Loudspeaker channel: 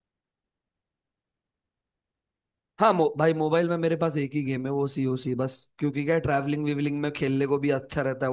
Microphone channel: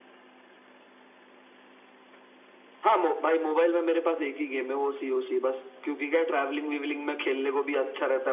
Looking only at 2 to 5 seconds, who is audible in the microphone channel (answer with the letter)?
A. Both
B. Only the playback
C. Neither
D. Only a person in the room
B